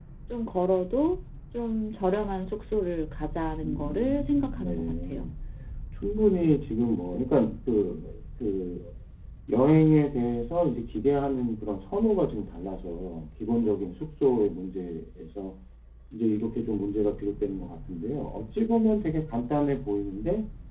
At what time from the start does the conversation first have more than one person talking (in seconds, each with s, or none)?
3.6 s